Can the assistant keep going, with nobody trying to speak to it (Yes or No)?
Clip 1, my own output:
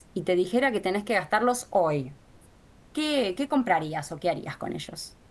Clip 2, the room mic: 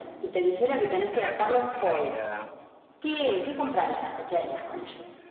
No